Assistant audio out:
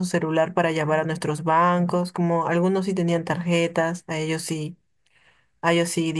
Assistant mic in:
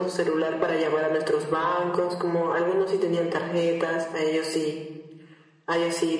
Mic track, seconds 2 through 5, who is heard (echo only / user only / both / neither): echo only